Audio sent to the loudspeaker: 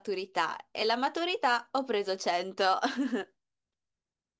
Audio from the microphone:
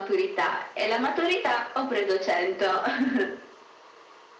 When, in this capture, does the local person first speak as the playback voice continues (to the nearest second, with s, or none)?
none